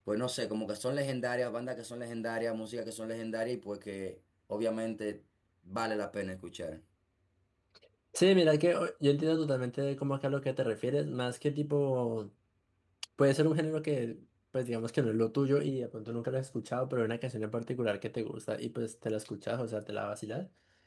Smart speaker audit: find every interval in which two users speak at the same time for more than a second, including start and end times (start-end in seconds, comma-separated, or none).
none